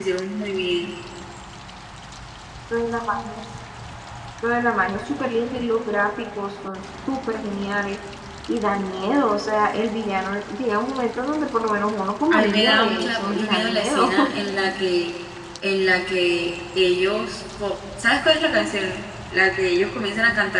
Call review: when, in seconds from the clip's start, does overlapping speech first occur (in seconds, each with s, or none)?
12.3 s